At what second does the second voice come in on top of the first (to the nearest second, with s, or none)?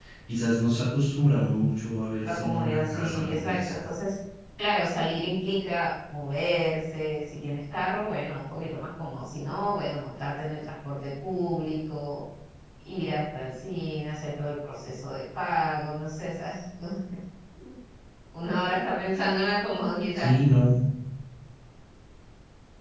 2 s